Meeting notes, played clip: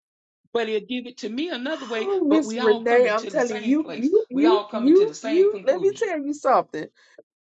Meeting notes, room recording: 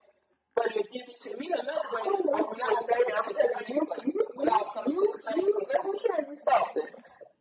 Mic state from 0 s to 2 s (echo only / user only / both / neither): echo only